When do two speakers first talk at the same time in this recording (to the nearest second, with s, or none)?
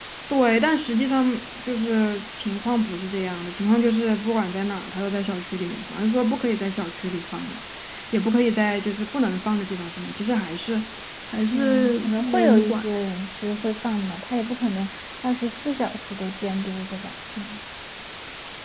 12 s